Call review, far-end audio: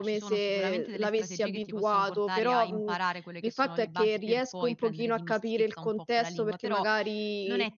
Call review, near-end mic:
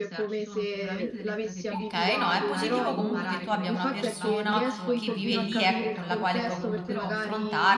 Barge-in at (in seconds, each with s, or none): 1.7 s